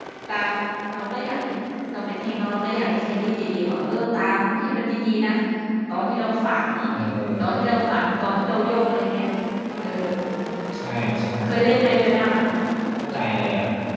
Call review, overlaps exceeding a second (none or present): none